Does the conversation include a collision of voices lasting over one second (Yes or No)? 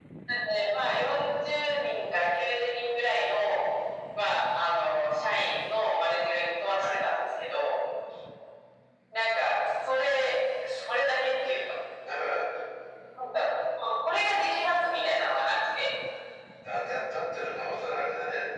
No